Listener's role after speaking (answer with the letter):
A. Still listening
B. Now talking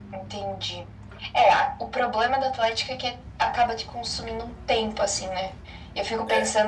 A